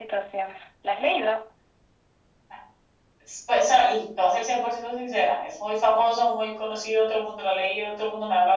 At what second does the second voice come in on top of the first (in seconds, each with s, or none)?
none